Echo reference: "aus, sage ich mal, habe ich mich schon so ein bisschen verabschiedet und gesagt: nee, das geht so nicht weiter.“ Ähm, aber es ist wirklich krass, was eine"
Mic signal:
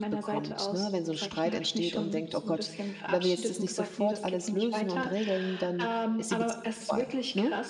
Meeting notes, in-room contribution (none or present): present